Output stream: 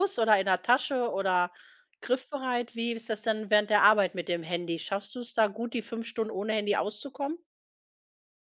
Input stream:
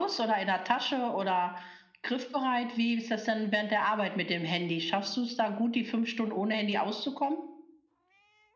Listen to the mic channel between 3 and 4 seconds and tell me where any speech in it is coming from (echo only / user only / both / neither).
echo only